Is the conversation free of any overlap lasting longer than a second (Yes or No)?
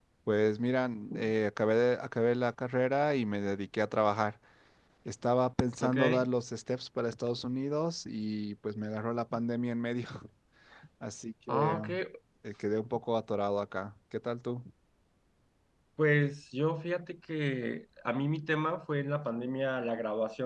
Yes